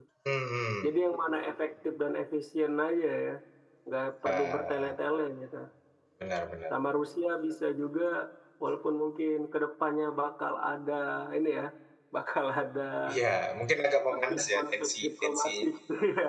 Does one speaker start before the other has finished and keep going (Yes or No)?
Yes